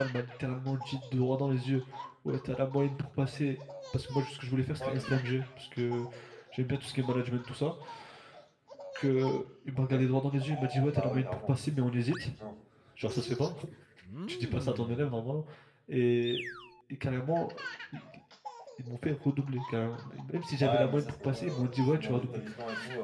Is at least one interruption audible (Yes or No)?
Yes